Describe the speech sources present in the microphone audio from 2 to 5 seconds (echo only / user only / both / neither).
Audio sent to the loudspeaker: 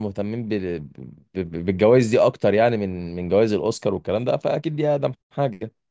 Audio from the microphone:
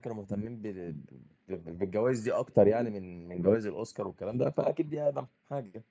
echo only